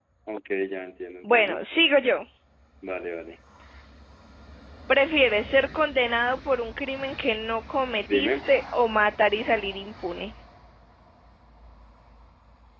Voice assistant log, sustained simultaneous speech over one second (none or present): none